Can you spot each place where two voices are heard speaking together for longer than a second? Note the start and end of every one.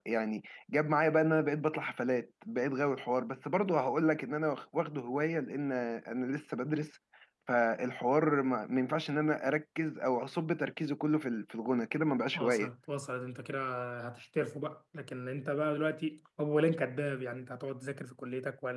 none

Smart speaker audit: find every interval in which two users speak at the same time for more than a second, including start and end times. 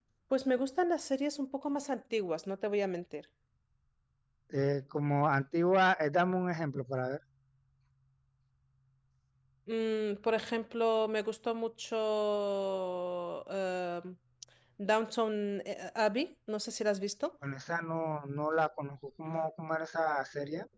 none

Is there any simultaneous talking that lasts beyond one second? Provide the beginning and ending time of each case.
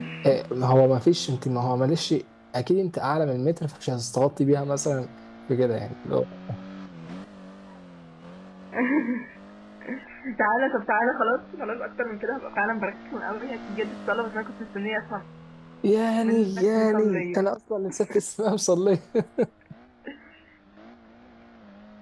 16.2-17.5

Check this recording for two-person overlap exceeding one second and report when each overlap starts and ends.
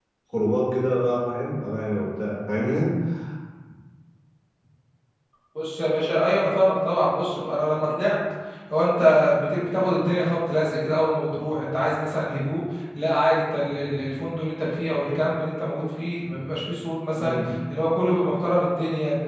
none

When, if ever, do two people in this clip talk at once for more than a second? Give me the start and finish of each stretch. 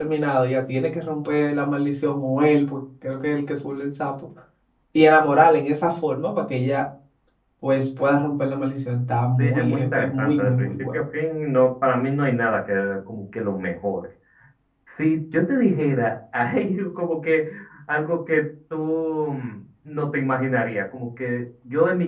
9.4-11.0

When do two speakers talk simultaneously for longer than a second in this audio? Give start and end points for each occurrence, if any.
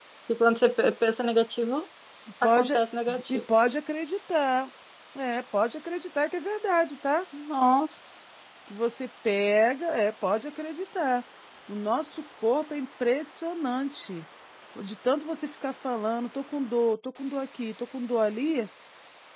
none

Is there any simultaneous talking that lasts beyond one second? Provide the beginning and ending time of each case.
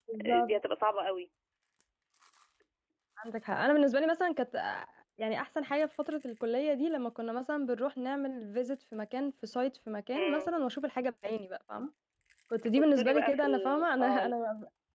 12.6-14.3

